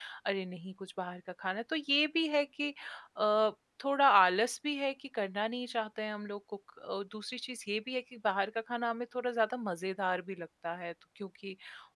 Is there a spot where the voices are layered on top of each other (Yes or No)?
No